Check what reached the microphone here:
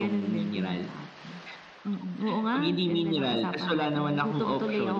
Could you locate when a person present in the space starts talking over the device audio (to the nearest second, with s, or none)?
none